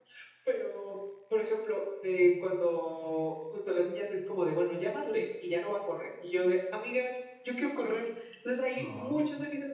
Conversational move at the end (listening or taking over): listening